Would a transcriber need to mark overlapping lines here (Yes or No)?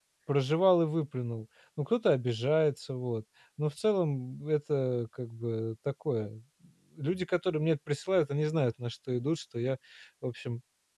No